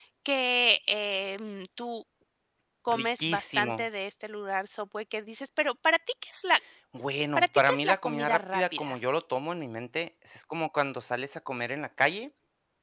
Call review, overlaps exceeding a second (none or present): present